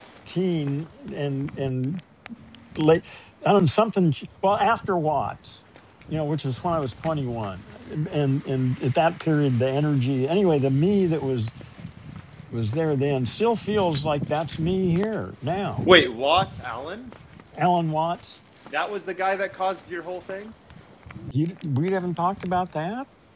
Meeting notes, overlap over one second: none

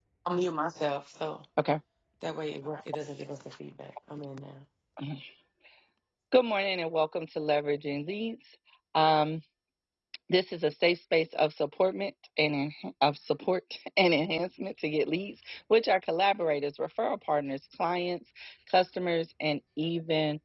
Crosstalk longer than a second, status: none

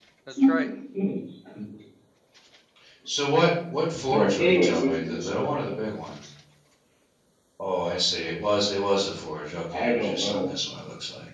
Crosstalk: present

